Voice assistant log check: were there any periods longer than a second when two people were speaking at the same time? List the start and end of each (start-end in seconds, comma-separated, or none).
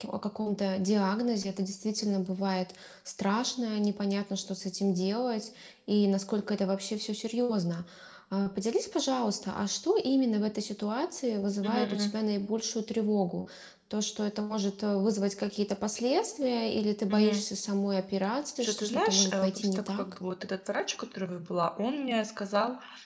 18.6-20.0